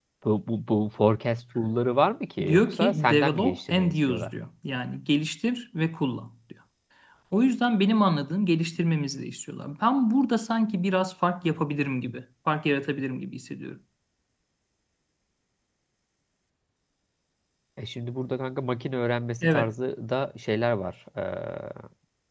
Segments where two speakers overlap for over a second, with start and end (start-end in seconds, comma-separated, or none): 2.5-4.3